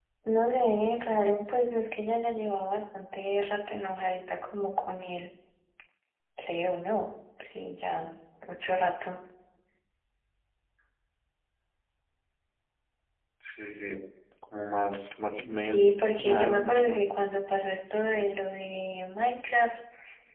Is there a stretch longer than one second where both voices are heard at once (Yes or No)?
Yes